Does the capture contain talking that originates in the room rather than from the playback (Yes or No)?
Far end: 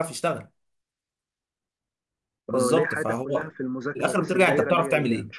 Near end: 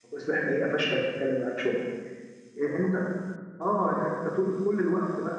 Yes